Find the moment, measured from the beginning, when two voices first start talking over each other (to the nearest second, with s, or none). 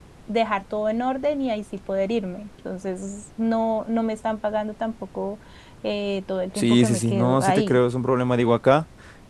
7 s